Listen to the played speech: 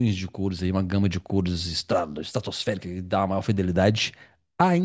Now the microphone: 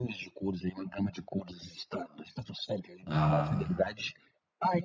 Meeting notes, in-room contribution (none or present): present